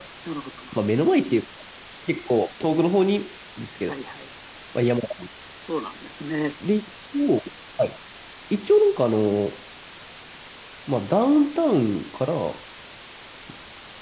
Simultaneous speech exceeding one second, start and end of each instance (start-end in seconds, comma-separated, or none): none